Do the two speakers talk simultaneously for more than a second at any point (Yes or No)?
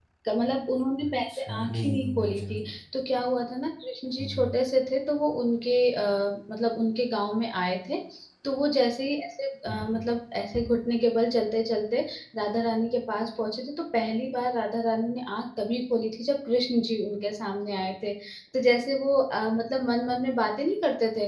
Yes